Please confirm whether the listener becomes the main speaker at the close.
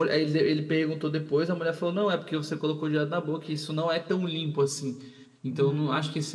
No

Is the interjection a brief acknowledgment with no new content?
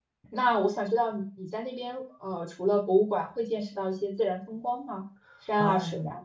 No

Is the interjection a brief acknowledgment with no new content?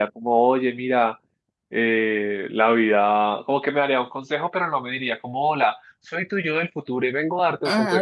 No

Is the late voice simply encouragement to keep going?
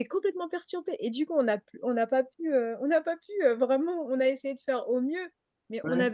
Yes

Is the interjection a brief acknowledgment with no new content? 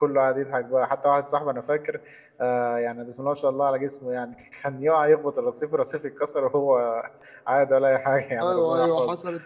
No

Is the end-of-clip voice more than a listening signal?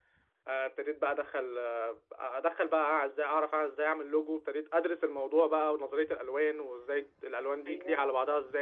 No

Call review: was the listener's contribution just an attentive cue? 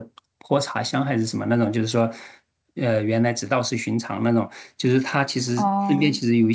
Yes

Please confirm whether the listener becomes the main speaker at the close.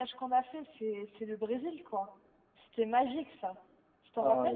Yes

